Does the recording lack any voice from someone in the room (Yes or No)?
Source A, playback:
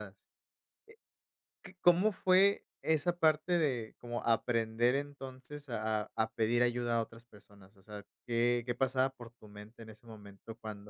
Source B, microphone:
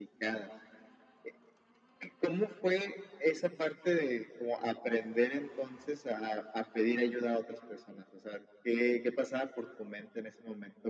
Yes